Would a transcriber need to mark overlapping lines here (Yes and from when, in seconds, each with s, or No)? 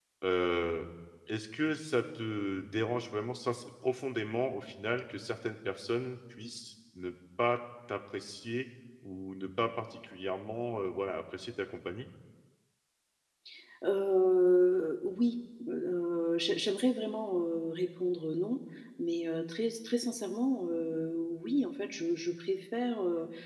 No